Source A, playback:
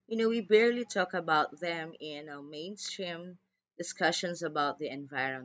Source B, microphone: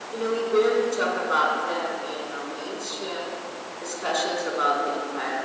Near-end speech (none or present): none